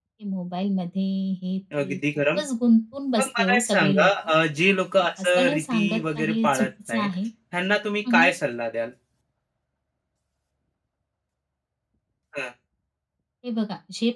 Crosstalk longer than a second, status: present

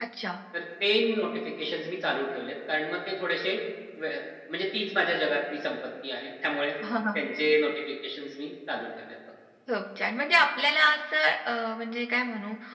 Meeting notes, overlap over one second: none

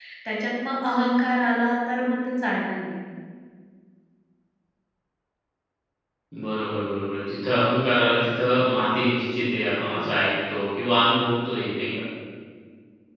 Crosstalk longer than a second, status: none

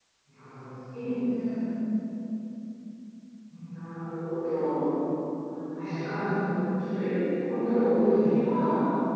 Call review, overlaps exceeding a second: none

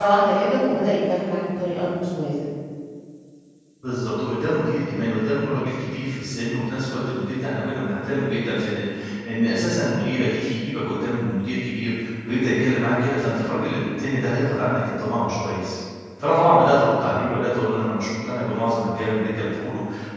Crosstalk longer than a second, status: none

